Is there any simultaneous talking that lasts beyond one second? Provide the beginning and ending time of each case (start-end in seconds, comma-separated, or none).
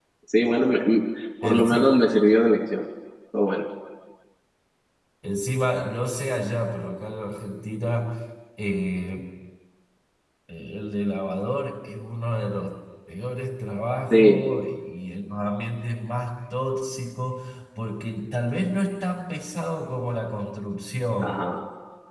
none